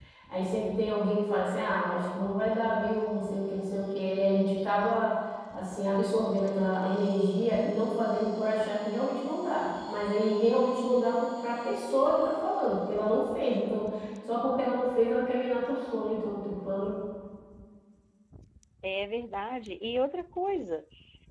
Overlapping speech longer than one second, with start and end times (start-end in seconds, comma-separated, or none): none